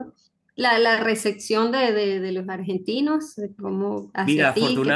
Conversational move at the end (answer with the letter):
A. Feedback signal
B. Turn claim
B